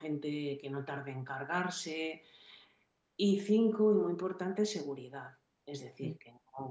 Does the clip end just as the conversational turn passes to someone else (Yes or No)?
No